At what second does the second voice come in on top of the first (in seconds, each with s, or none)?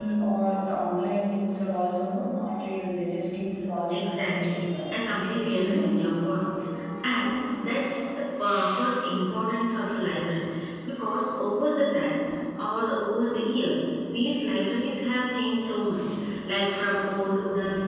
3.9 s